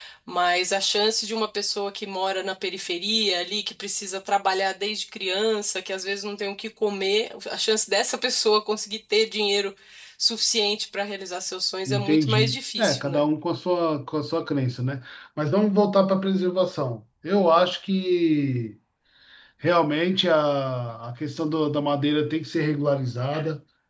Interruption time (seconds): 11.9 s

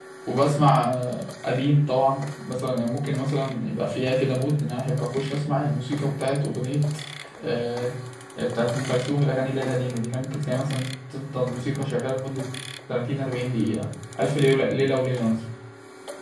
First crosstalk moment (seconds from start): none

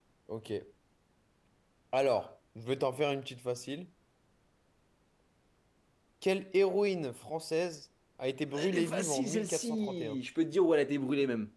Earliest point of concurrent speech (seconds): 8.5 s

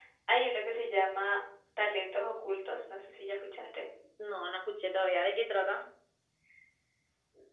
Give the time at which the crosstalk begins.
none

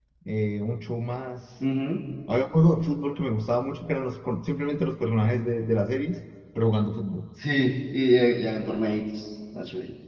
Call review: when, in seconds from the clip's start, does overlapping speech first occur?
none

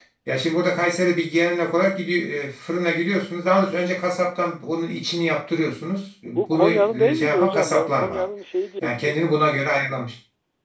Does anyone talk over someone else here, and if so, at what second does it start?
6.3 s

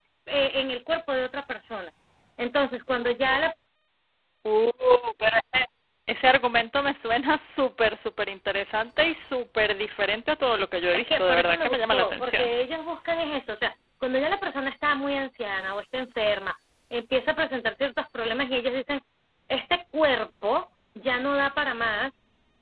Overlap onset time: 10.9 s

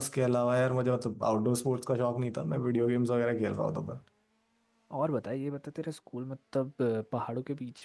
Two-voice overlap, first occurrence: none

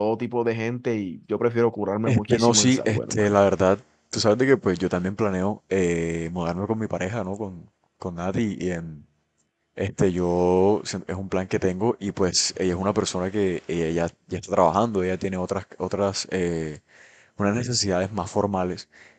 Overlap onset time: 2.1 s

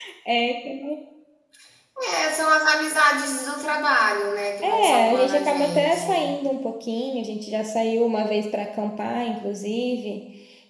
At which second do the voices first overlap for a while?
4.6 s

